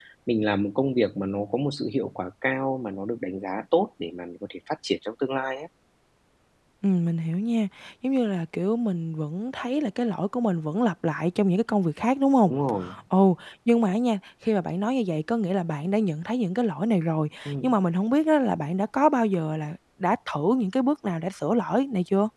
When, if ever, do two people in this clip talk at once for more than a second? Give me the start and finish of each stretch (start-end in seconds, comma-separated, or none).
none